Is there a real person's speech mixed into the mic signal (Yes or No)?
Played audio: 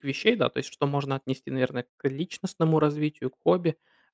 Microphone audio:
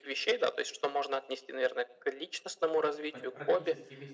Yes